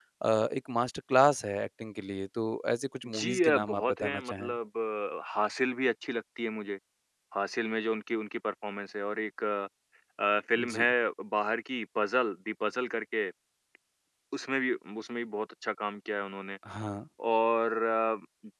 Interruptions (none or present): present